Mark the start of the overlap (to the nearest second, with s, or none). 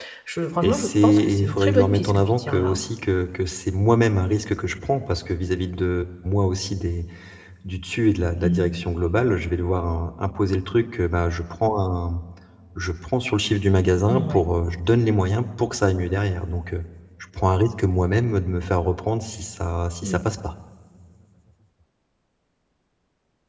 1 s